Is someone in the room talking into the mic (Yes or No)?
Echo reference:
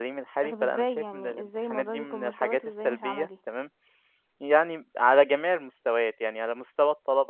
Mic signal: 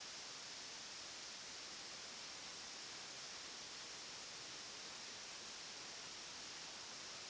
No